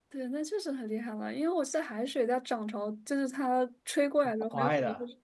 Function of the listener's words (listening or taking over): taking over